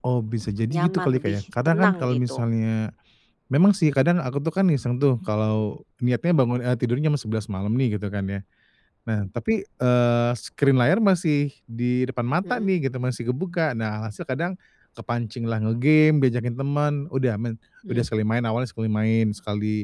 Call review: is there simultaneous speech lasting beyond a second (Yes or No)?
Yes